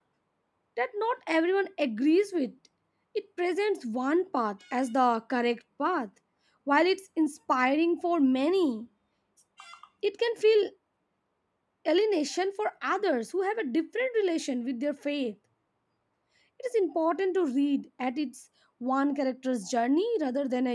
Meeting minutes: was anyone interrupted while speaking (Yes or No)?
No